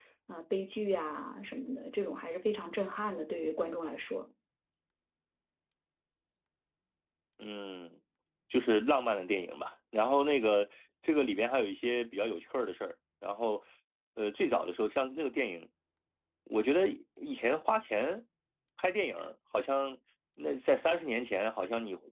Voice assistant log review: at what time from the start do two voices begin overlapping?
none

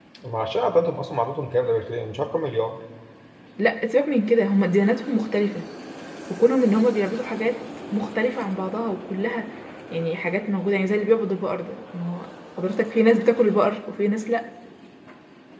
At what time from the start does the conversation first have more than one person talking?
none

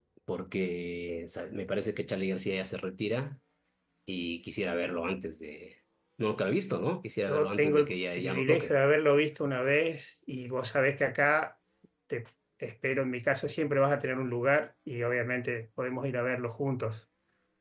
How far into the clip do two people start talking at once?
7 s

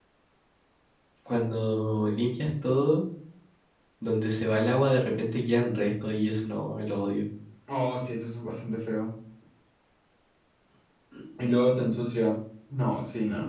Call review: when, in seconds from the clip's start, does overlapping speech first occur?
none

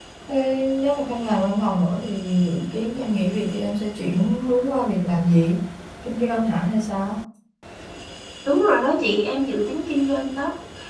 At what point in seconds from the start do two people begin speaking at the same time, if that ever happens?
none

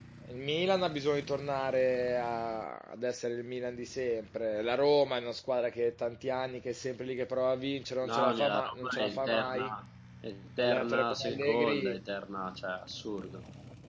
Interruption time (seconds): 8 s

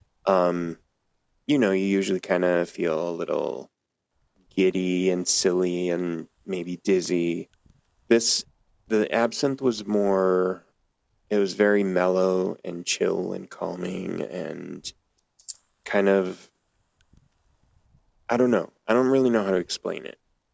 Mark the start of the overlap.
none

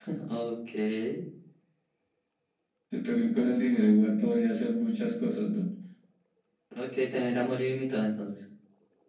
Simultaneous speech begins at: none

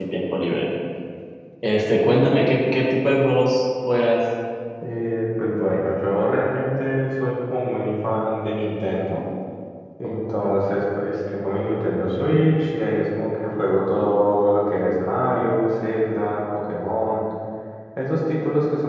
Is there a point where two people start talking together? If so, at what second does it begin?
none

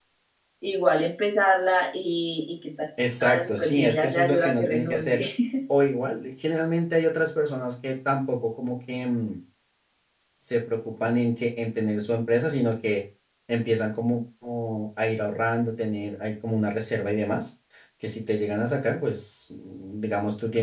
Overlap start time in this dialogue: 3 s

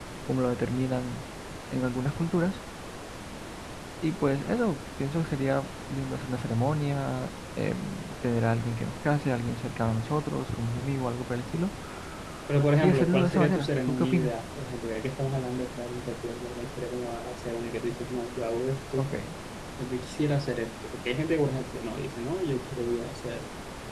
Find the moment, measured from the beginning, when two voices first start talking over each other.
13 s

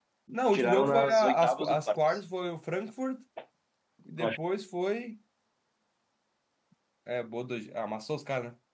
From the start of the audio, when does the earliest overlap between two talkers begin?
1 s

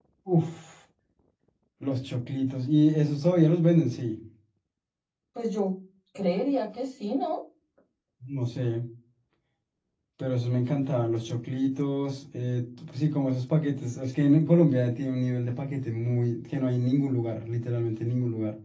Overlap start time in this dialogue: none

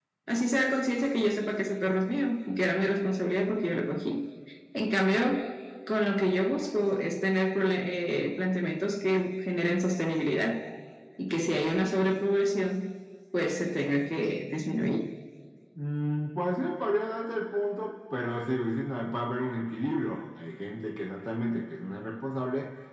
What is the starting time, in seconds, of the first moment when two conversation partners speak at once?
none

